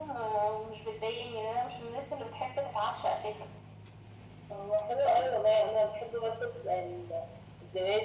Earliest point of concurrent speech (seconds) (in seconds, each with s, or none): none